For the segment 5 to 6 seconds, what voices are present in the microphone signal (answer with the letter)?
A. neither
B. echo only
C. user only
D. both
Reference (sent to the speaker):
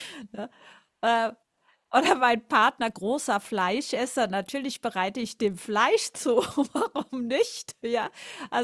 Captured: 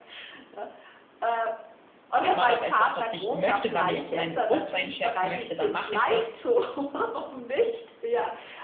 D